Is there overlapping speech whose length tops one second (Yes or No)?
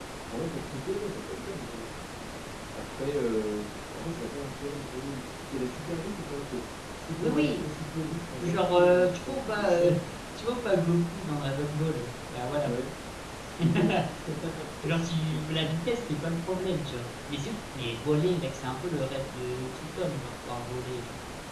Yes